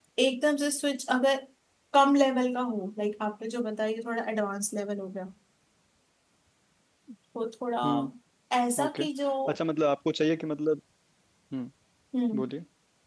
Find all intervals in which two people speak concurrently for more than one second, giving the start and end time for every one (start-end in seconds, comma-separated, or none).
none